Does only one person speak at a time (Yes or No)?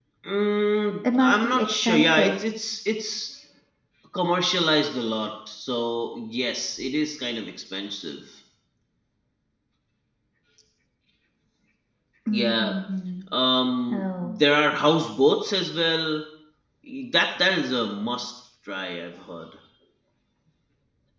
No